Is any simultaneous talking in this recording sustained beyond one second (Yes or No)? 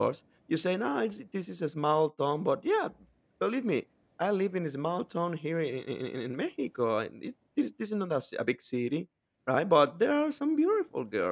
No